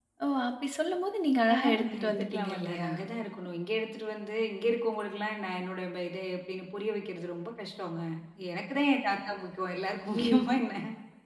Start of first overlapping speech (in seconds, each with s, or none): 1.5 s